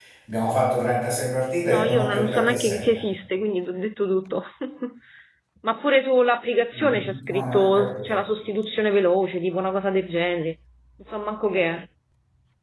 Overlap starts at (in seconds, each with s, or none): 1.7 s